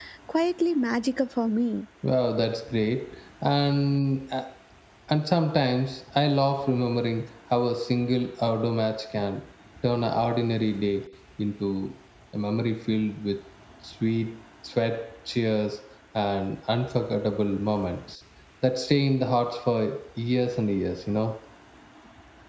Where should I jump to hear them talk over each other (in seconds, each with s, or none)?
none